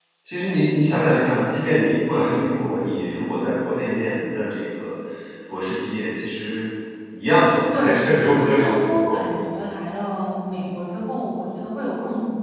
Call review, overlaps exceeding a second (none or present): present